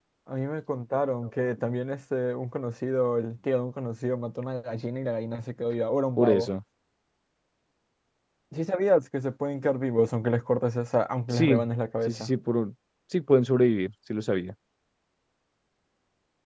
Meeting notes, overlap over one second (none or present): none